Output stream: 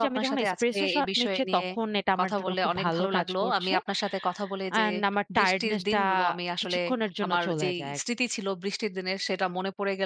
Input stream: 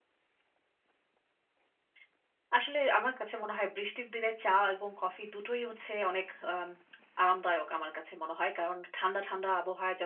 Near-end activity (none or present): present